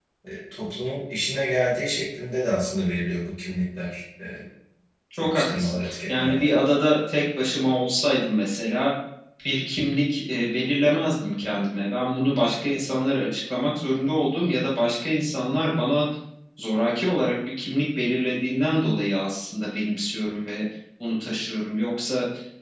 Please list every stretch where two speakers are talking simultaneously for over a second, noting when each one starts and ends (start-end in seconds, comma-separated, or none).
5.2-6.5